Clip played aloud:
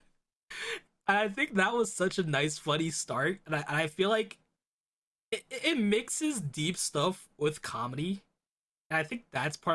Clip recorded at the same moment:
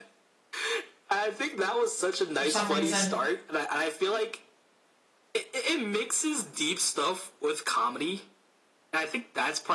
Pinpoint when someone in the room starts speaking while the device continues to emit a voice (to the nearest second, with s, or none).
2 s